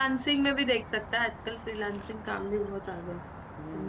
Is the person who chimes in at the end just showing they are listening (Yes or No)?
No